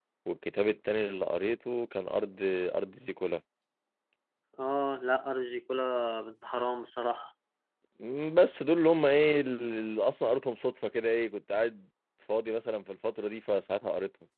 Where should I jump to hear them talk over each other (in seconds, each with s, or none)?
none